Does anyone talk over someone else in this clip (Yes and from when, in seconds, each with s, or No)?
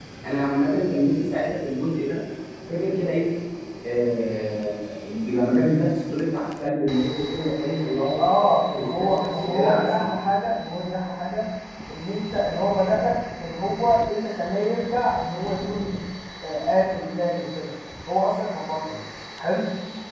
Yes, from 8.2 s